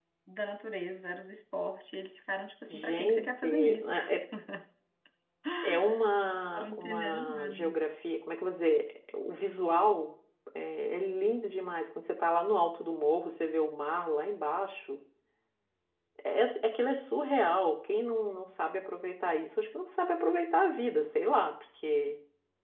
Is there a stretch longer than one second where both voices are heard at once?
Yes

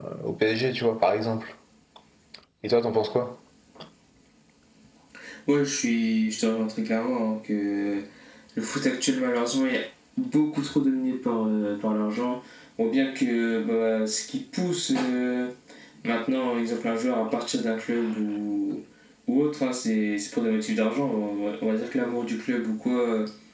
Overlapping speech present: No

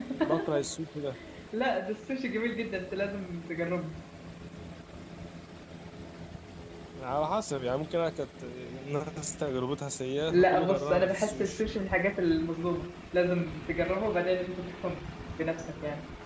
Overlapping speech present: Yes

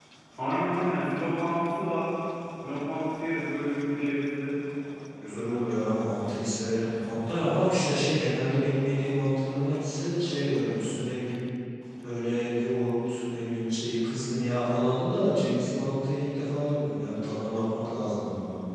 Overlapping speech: No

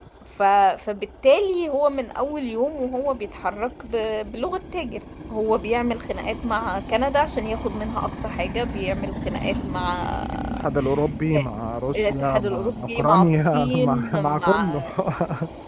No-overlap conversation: No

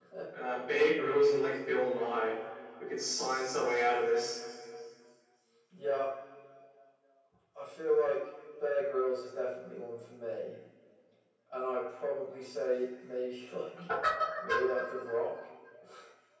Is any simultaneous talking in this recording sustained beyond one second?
No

